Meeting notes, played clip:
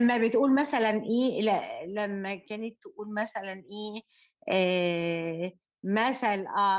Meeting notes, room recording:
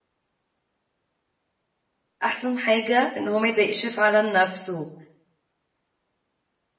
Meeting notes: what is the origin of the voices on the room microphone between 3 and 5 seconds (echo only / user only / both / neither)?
user only